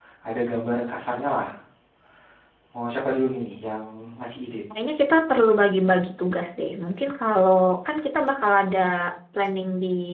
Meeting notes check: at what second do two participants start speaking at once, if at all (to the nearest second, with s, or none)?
none